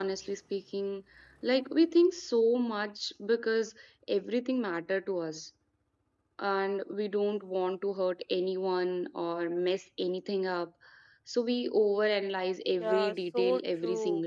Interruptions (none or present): present